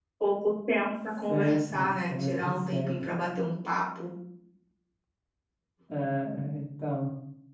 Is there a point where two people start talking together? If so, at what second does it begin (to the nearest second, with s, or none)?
1 s